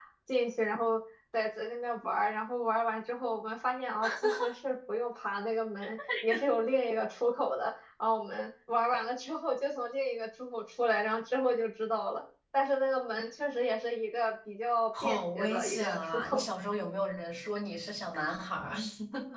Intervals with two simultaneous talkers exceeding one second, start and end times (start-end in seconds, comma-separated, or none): 15.0-16.5